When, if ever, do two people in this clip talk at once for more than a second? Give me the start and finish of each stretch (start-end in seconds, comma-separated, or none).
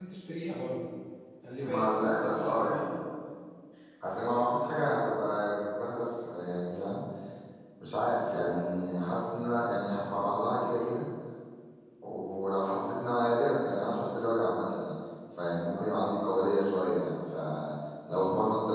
1.6-2.9